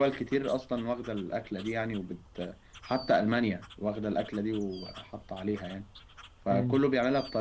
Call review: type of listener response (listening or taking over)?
listening